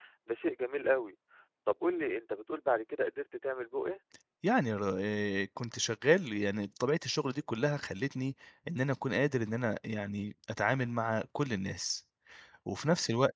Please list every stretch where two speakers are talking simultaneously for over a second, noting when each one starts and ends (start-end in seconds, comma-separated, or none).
none